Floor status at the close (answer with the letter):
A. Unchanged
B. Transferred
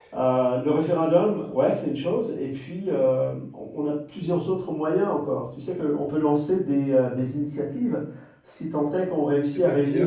A